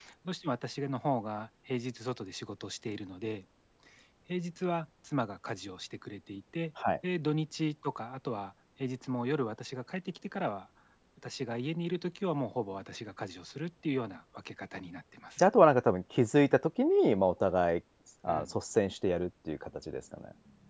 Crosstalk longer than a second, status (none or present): none